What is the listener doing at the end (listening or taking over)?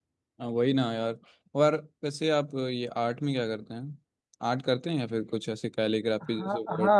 taking over